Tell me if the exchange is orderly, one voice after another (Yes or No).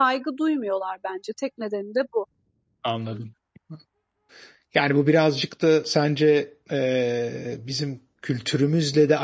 Yes